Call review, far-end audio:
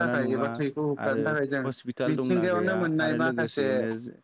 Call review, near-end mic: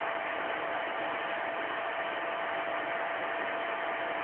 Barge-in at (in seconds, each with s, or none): none